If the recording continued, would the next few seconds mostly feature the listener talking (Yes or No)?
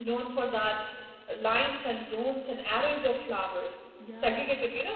No